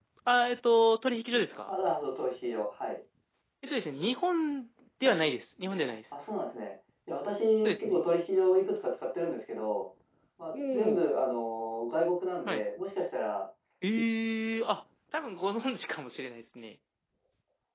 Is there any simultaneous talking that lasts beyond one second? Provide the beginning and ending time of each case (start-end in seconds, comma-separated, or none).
none